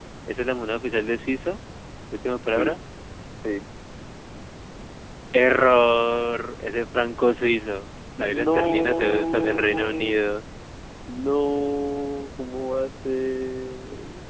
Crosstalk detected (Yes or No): Yes